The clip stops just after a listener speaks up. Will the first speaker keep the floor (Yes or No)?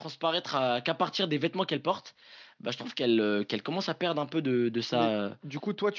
No